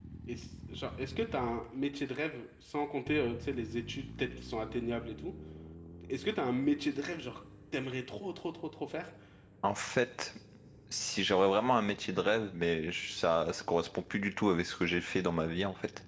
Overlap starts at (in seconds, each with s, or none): none